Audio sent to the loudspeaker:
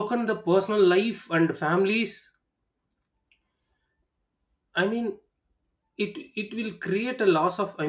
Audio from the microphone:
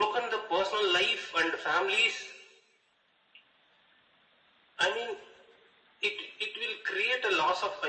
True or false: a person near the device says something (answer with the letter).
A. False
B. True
A